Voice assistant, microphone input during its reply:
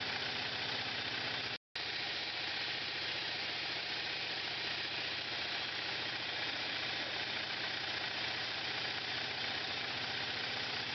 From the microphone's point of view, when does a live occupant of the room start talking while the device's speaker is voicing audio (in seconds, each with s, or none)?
none